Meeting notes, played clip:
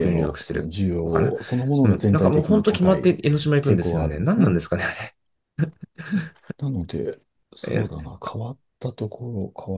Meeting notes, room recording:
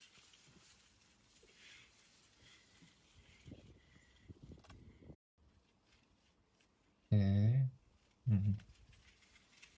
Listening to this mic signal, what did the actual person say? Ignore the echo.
ええうん。

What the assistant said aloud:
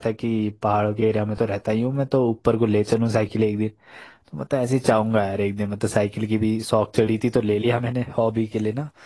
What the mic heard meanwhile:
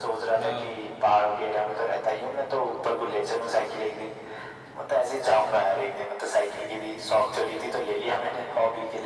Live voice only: हाँ

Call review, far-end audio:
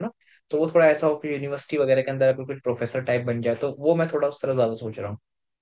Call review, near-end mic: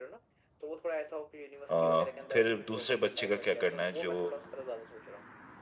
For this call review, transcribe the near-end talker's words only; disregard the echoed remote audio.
अ, फिर दूसरे बच्चे का क्या करना है जो

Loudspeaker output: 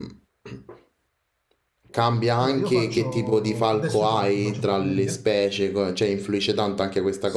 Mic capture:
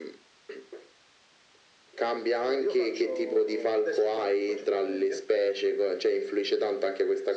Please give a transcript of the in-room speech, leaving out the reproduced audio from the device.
none

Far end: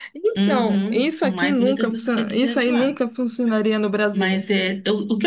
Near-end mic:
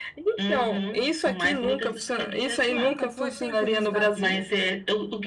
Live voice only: Nunca foi? Tem curiosidade de ir?

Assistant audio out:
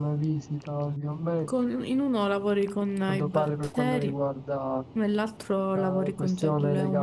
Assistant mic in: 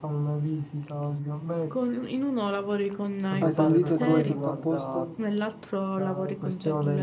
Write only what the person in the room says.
Hai sentito i tuoi tutto a posto?

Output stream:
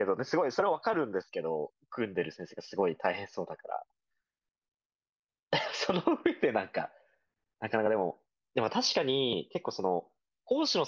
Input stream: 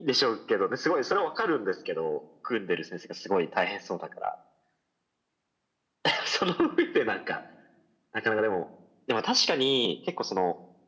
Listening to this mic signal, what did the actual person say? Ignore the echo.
none

